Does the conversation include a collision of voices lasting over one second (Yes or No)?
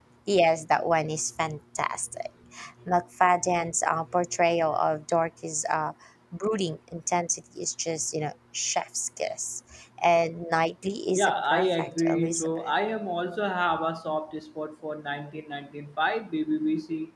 Yes